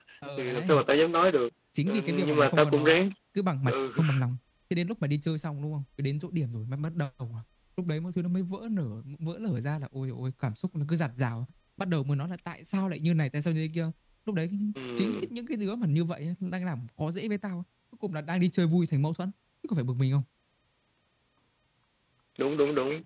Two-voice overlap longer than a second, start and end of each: 1.9-3.1

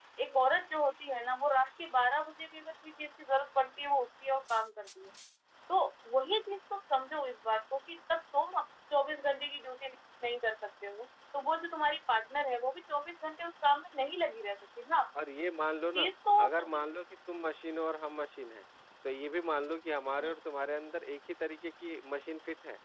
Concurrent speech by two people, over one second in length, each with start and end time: none

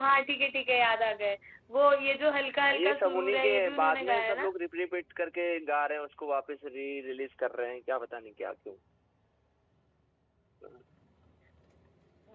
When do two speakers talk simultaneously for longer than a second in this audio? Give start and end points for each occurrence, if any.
2.7-4.5

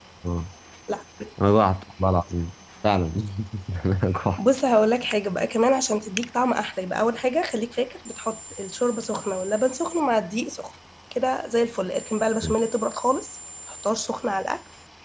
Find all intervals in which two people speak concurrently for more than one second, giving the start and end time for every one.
none

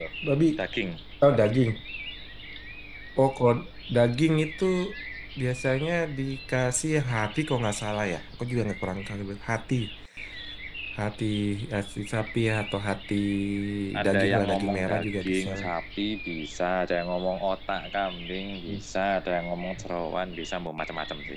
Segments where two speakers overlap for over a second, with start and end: 14.0-15.5

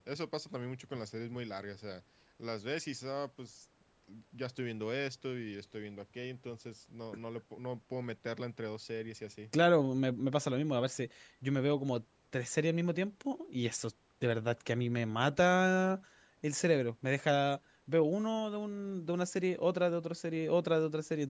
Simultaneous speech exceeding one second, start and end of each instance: none

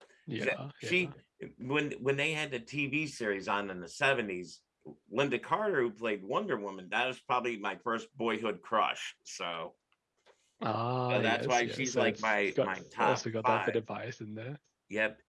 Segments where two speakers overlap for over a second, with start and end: 11.1-13.8

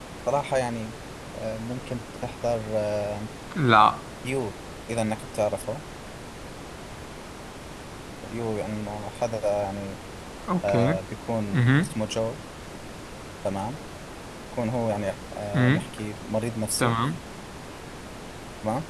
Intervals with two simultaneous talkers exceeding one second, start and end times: none

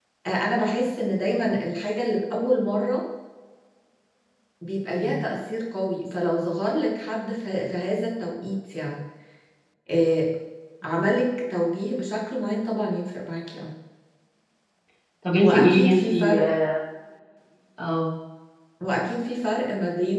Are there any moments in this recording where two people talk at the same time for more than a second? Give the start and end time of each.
15.3-16.6

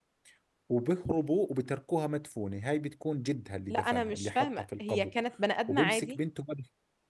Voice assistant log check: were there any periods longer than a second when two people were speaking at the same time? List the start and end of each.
3.7-5.1

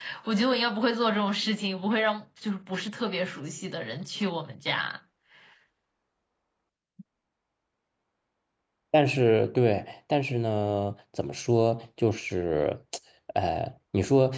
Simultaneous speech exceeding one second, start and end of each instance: none

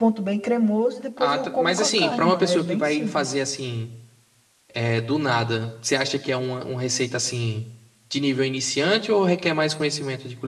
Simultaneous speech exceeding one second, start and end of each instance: 1.2-3.3

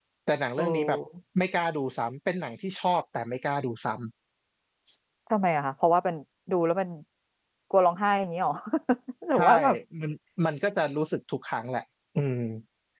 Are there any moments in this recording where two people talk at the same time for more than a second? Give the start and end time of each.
none

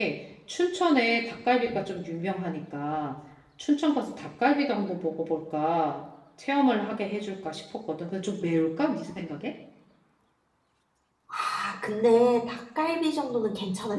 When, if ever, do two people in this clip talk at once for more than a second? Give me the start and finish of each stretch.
none

